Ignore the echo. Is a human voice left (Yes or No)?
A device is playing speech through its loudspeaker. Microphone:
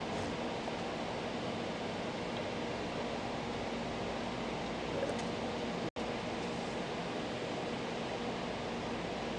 No